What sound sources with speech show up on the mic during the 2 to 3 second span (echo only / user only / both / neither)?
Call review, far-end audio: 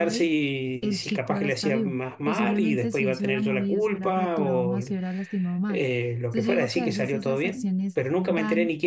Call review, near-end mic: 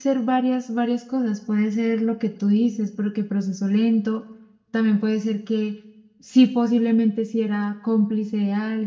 user only